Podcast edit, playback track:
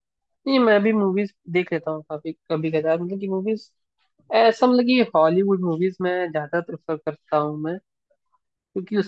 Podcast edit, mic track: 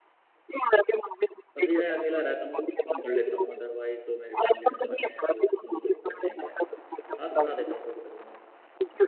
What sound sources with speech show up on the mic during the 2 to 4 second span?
both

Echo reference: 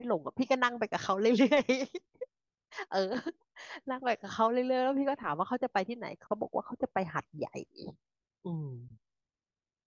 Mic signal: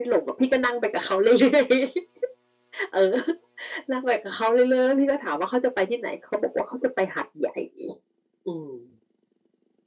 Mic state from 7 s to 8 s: echo only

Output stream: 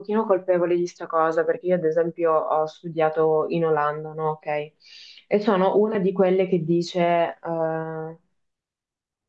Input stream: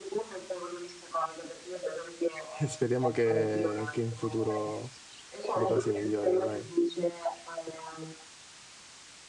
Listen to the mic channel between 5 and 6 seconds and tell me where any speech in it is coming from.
both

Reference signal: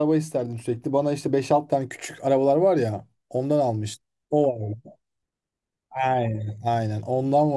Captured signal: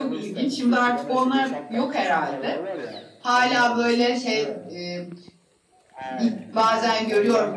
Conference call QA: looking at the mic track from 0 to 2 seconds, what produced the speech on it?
both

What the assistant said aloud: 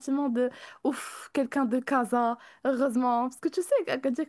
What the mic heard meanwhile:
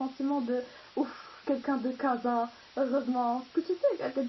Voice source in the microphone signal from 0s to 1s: echo only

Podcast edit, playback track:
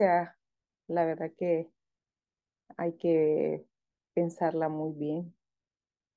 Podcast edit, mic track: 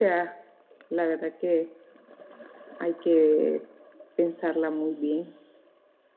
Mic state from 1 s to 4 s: echo only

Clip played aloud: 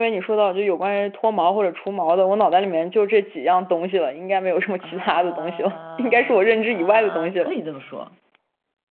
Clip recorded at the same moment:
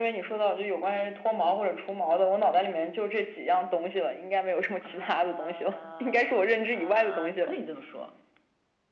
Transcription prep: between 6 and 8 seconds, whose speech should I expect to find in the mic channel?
echo only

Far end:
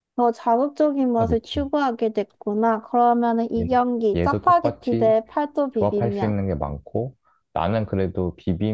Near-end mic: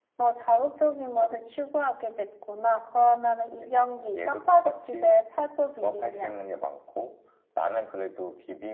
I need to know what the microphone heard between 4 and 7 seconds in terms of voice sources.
echo only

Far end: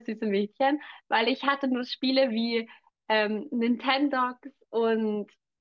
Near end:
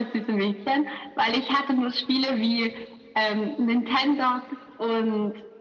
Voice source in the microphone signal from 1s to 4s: echo only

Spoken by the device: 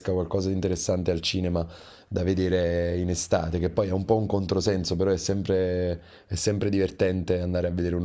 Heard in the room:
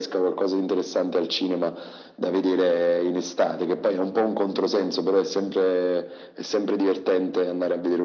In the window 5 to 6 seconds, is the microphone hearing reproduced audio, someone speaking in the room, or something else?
echo only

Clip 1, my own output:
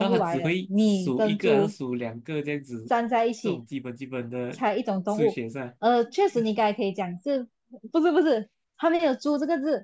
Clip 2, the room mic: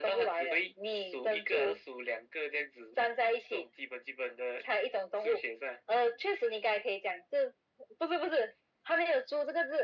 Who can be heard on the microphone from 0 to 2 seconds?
echo only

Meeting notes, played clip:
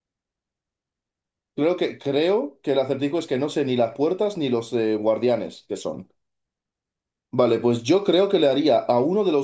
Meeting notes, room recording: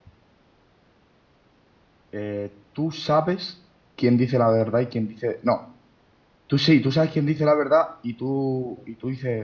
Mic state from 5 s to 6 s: user only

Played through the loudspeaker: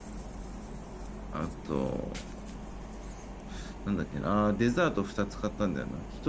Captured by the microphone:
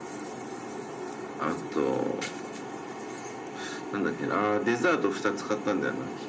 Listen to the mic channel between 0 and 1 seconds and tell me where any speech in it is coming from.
neither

